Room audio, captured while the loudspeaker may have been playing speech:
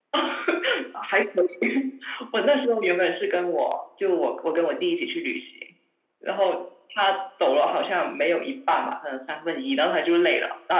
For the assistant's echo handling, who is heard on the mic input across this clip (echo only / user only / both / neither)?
echo only